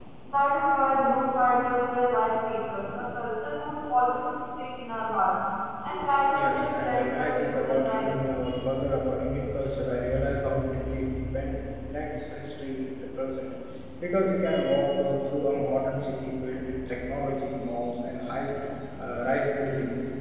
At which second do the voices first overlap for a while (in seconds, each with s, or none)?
6.3 s